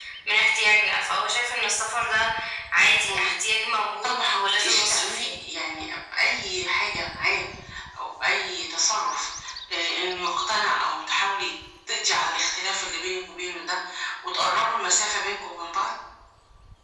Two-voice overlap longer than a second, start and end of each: 4.0-5.4

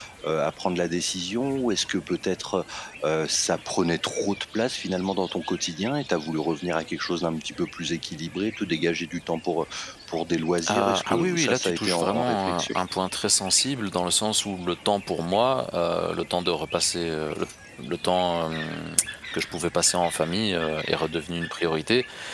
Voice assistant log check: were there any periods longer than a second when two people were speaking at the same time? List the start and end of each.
10.7-12.7

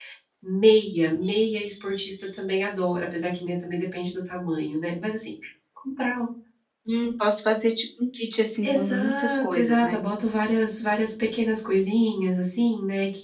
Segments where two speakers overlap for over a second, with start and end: 8.6-10.0

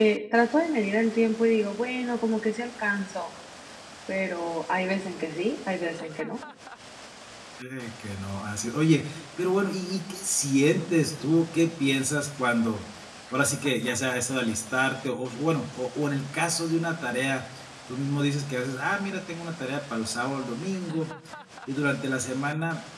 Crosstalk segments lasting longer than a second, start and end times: none

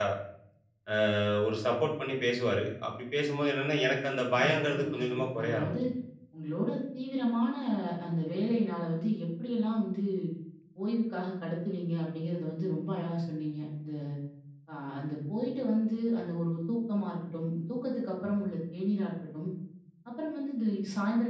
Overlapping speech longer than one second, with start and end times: 4.3-5.7

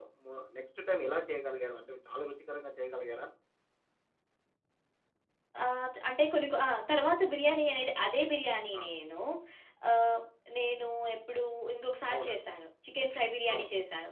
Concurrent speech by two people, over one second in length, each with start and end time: none

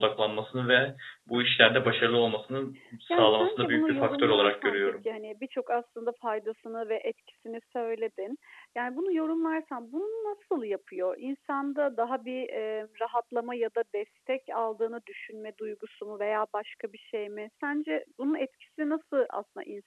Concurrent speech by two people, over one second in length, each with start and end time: 3.1-4.9

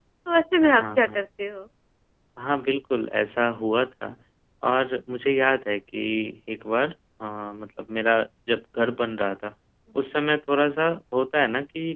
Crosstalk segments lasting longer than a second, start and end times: none

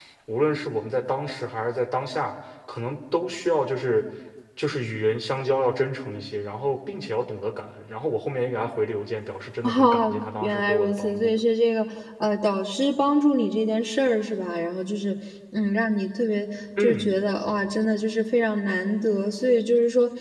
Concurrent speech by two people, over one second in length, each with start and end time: 9.6-11.3

